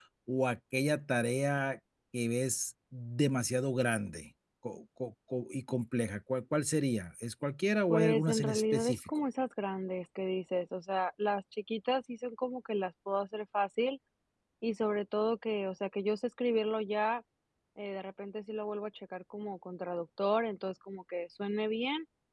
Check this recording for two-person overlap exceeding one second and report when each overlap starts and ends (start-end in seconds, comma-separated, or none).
7.9-9.1